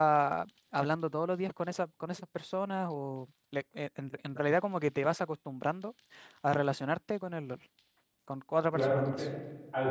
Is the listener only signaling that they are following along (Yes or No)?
No